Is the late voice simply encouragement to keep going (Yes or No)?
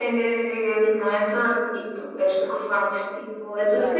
No